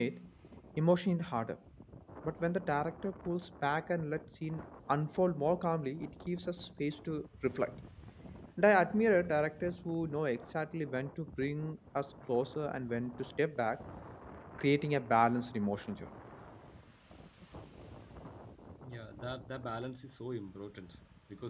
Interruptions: none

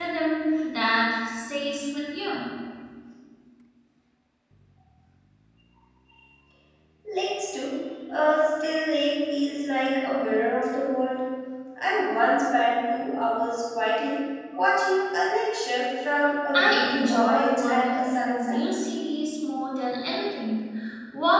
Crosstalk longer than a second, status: present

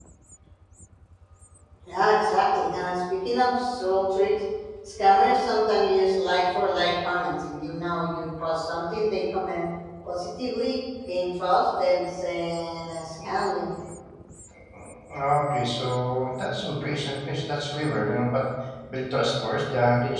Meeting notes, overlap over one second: none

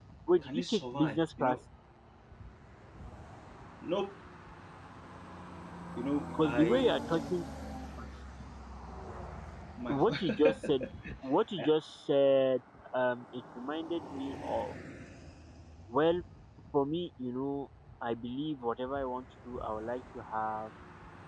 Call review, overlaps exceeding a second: present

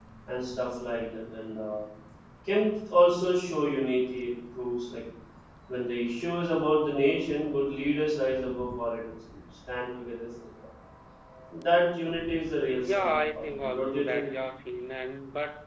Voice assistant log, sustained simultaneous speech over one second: present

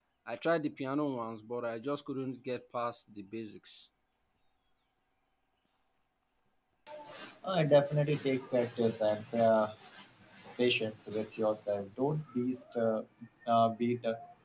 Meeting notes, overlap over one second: none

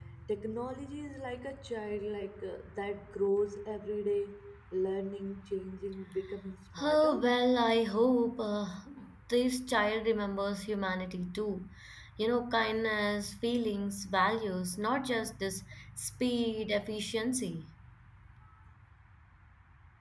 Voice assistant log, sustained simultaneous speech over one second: none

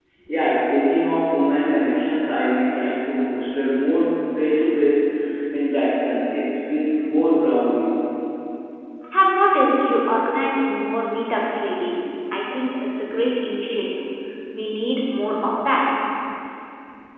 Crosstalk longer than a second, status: none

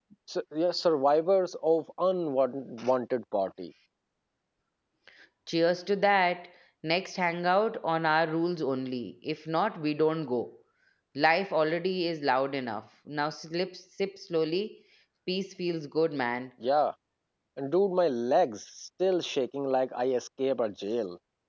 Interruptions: none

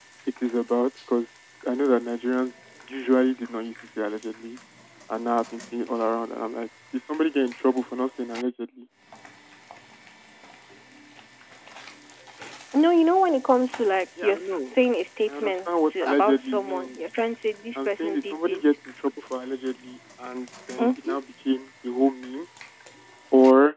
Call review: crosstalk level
present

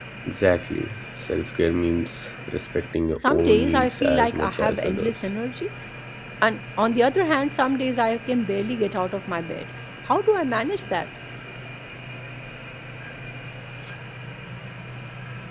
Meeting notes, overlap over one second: present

